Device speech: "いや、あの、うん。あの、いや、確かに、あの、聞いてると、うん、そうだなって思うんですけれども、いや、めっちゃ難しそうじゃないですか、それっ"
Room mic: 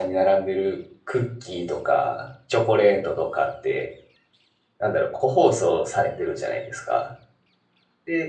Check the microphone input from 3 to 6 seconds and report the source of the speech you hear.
user only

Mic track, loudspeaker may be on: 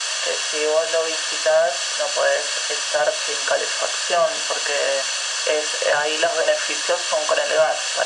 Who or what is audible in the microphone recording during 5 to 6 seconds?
echo only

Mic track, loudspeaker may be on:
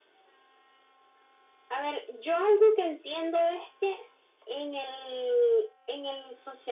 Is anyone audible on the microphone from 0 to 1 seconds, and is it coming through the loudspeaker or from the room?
neither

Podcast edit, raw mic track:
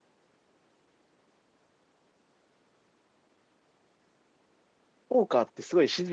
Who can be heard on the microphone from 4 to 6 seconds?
user only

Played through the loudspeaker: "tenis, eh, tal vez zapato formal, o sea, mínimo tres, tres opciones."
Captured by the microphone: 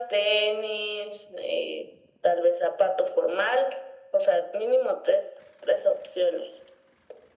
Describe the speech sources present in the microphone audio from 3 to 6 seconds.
echo only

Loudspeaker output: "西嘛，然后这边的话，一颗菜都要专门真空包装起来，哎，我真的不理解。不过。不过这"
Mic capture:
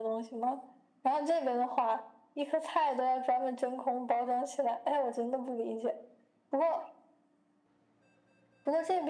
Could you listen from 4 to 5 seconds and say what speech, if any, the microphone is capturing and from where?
echo only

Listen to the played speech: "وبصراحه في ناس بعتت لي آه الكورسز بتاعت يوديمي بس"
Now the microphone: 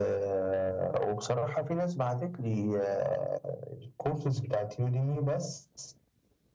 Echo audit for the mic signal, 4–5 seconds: echo only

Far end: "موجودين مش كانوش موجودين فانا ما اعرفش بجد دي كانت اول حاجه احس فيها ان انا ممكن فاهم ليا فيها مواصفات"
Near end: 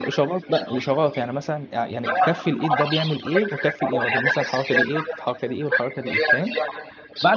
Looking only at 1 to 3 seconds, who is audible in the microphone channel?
both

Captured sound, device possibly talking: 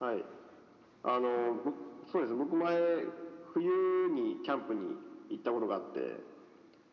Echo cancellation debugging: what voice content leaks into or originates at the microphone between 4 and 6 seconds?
echo only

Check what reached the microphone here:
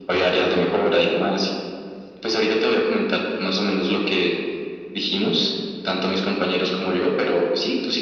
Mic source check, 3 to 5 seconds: echo only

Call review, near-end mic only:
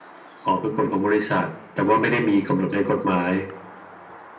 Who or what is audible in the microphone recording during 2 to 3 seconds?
echo only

